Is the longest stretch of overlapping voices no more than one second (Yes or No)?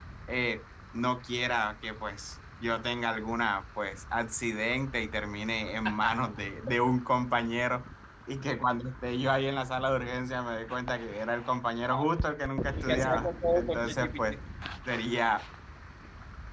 No